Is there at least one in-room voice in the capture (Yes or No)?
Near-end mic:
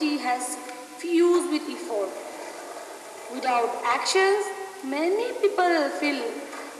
No